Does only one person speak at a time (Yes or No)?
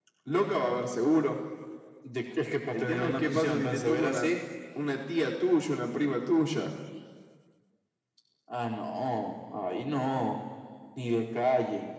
No